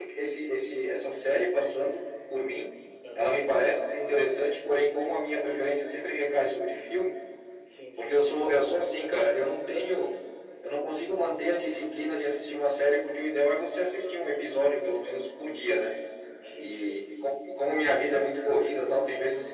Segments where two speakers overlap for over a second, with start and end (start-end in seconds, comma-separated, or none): none